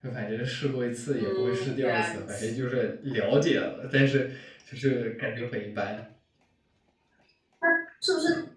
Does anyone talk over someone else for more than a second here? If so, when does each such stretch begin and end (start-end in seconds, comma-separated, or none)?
1.2-2.5